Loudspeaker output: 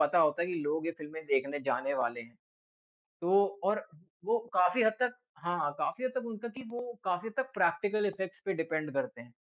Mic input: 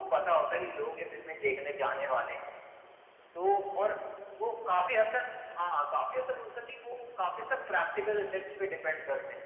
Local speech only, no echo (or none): none